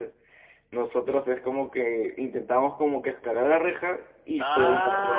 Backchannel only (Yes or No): No